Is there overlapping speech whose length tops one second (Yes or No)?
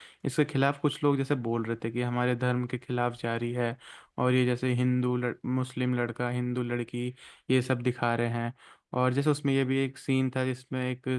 No